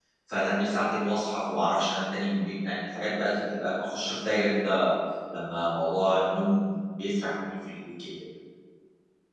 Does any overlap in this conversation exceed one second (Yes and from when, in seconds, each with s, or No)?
No